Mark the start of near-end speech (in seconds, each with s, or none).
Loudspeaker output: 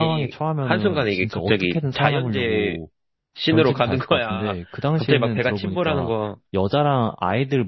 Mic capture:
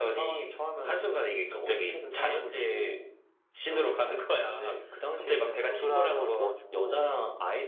5.5 s